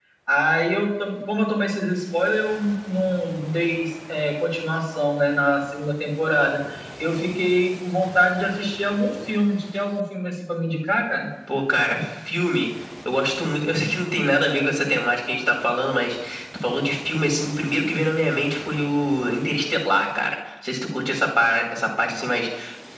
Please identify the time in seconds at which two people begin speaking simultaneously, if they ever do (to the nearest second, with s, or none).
none